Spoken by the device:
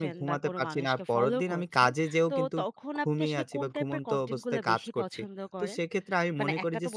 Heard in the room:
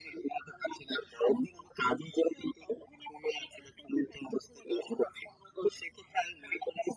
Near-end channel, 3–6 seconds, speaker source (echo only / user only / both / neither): echo only